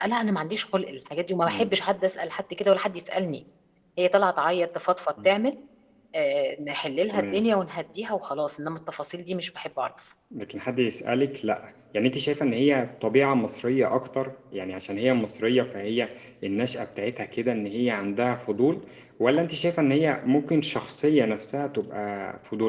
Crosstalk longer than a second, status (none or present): none